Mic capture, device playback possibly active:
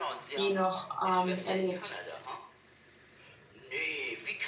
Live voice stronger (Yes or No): Yes